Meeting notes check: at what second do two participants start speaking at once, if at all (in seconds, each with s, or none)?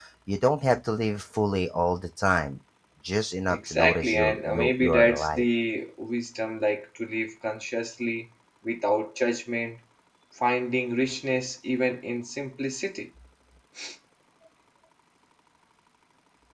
3.5 s